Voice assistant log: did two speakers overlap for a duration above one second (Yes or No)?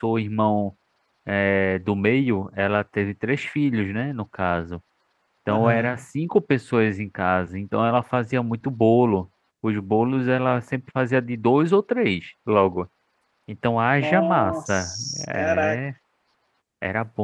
Yes